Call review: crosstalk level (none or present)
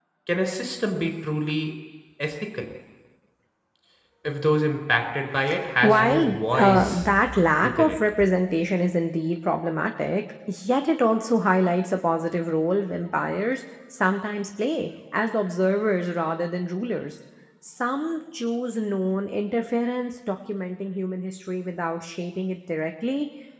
present